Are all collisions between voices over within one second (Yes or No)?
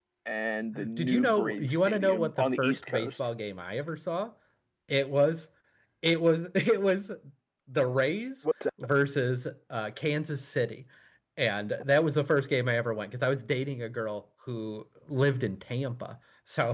No